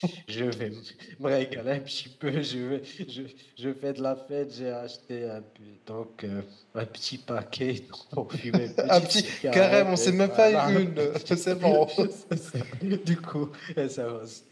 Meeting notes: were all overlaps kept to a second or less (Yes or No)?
No